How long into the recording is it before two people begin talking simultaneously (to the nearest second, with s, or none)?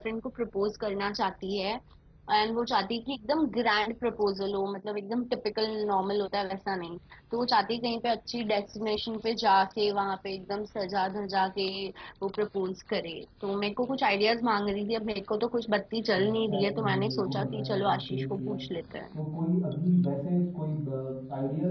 16 s